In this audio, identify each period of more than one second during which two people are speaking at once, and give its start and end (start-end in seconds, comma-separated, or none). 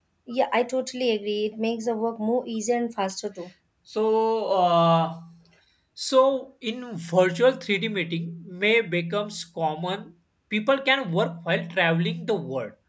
none